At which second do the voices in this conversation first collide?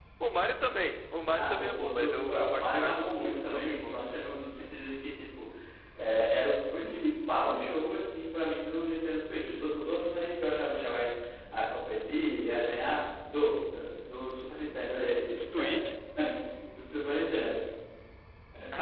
1.4 s

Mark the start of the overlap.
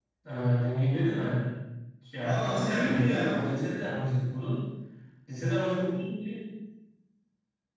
2.2 s

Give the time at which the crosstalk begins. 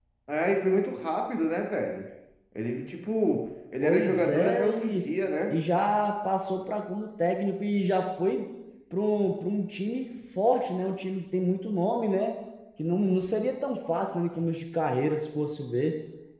3.8 s

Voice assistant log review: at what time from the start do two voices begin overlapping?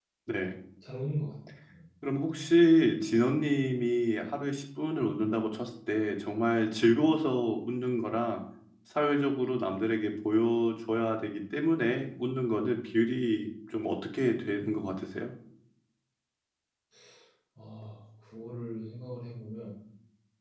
none

